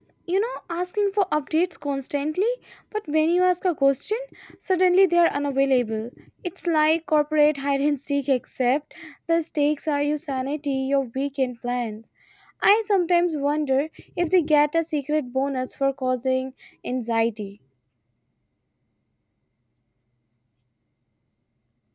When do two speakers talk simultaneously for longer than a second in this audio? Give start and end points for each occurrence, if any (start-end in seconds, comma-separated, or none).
none